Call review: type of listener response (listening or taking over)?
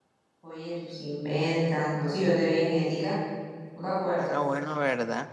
taking over